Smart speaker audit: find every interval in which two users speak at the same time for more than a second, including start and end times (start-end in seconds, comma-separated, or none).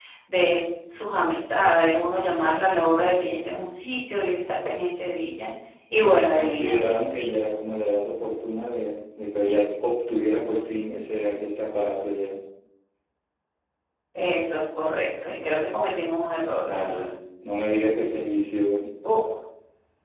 none